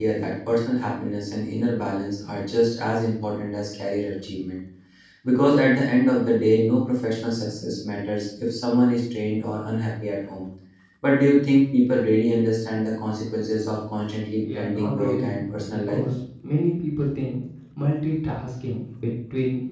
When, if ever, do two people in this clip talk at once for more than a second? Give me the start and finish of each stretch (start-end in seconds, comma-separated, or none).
14.4-16.0